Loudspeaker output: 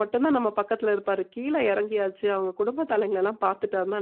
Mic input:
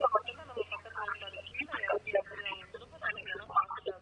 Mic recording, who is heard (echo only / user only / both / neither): echo only